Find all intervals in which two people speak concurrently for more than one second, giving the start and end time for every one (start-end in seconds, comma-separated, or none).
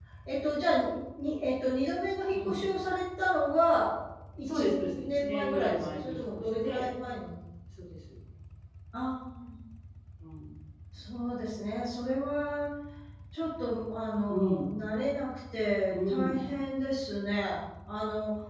4.5-6.8